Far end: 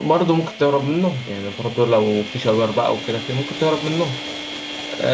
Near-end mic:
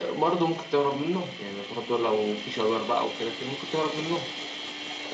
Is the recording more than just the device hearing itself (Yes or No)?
No